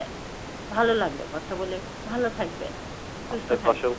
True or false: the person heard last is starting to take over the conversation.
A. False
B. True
B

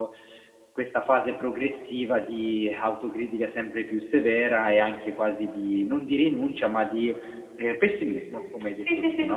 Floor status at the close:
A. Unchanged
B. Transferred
B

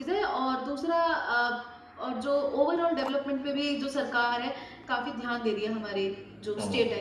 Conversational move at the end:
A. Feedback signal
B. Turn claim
B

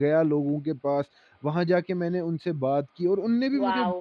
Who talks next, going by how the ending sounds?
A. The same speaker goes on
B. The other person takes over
B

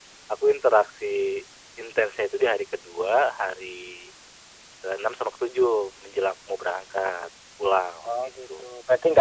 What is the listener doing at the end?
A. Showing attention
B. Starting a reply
B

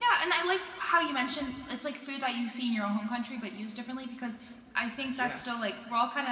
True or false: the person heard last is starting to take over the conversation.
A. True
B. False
B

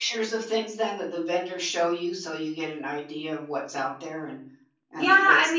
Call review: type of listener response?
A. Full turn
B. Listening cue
A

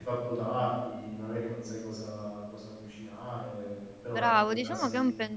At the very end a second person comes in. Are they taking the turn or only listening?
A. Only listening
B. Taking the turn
B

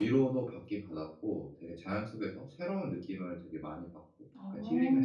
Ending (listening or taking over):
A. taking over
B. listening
A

